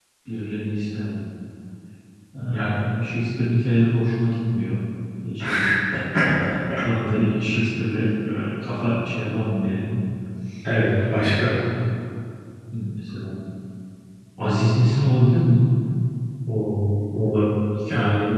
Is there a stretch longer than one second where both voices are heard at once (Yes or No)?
No